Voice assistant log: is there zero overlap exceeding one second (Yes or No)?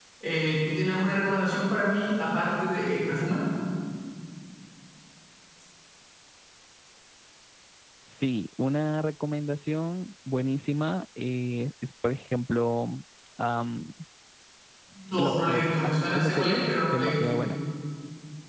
No